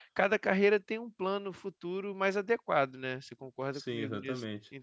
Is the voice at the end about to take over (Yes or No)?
Yes